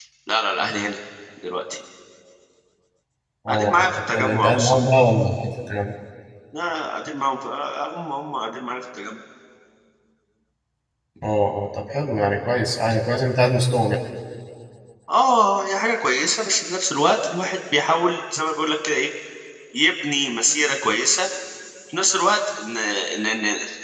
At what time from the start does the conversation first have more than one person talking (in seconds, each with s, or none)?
3.5 s